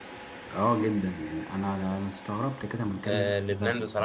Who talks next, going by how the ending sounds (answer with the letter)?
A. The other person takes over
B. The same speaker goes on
A